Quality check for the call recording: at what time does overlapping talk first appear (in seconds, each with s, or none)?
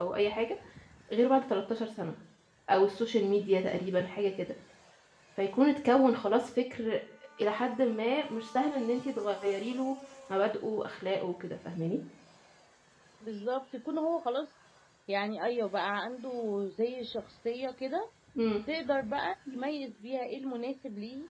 none